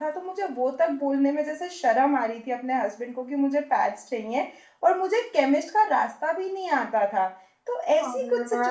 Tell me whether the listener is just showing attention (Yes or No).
Yes